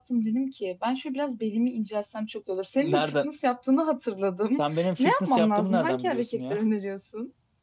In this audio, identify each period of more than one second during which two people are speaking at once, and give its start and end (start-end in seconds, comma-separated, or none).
4.6-6.6